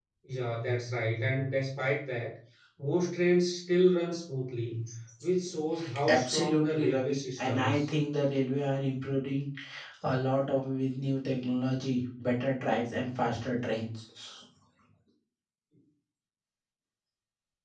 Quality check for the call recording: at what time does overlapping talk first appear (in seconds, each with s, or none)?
6.1 s